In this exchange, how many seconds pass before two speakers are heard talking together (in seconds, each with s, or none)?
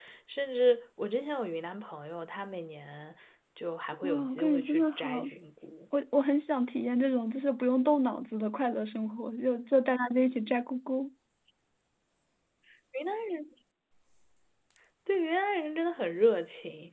4.0 s